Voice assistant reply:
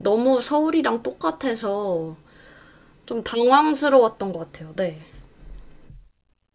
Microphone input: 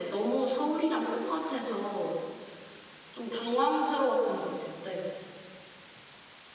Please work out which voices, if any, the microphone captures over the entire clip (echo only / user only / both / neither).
echo only